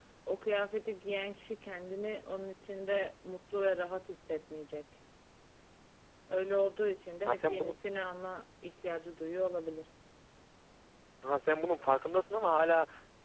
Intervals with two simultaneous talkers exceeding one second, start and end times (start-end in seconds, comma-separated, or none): none